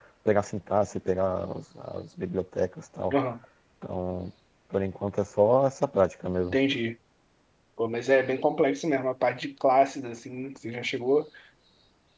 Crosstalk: none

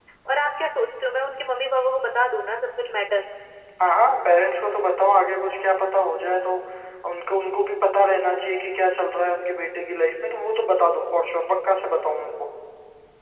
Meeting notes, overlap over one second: none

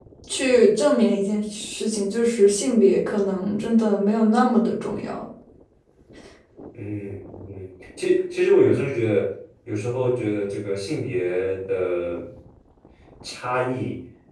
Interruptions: none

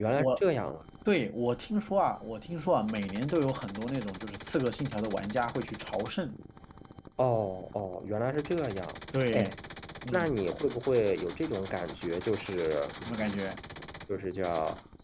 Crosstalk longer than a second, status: none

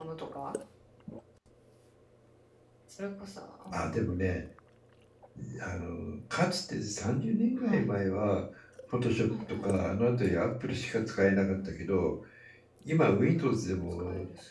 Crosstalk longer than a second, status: none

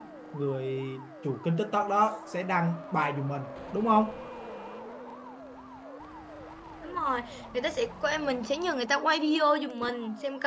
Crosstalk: none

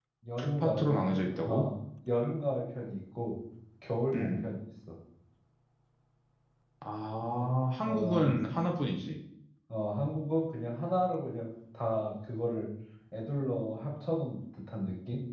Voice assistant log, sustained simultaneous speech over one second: present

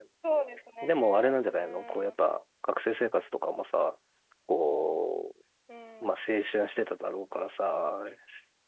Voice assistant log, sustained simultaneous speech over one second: present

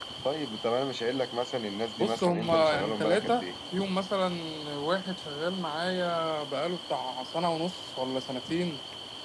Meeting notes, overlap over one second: present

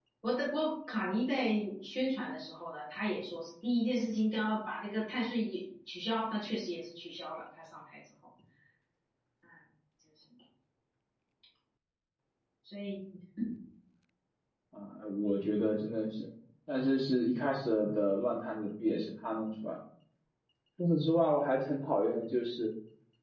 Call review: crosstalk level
none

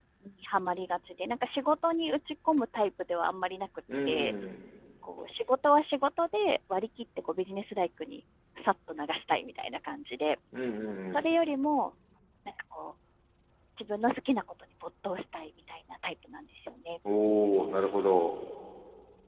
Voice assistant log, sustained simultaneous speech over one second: none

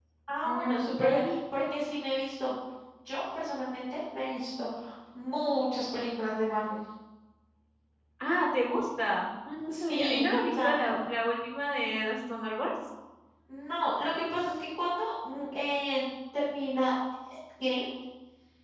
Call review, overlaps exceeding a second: present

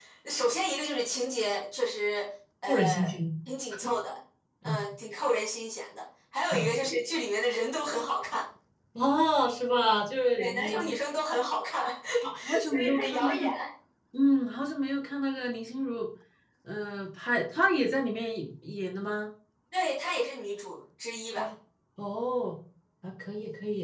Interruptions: present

